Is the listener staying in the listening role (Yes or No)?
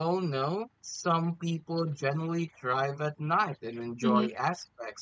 Yes